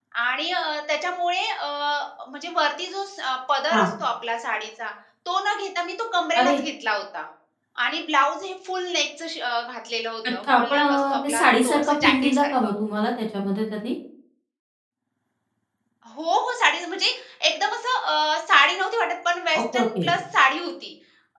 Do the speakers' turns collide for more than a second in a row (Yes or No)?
Yes